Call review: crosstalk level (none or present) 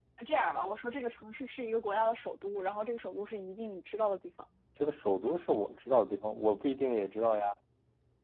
none